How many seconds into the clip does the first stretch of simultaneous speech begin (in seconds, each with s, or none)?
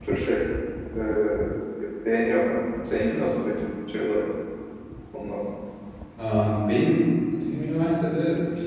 none